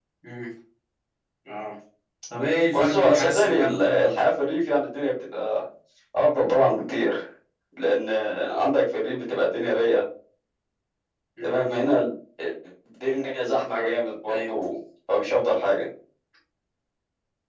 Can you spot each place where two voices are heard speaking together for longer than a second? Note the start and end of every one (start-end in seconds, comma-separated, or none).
2.7-4.1